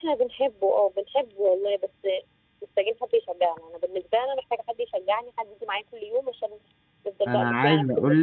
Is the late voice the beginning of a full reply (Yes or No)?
Yes